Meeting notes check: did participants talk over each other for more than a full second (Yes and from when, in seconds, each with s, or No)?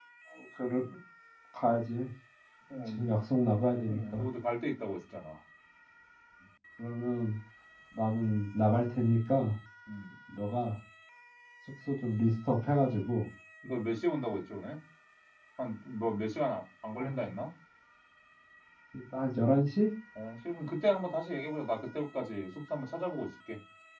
No